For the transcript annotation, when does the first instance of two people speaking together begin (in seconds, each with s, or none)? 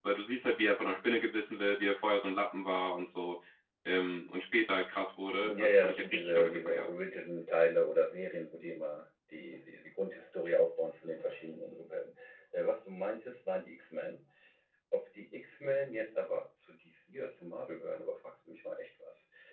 5.4 s